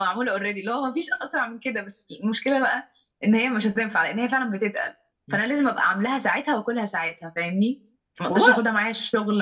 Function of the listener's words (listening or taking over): listening